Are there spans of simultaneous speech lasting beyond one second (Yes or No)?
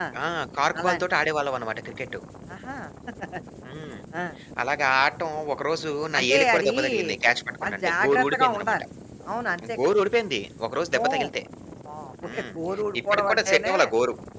Yes